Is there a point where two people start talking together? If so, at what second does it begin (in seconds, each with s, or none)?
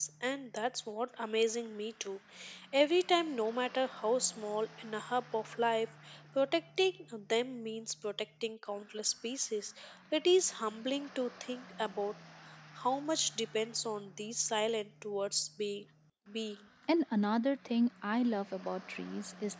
none